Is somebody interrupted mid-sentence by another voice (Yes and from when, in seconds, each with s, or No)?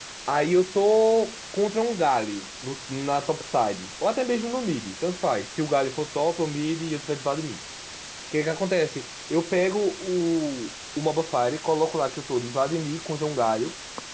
No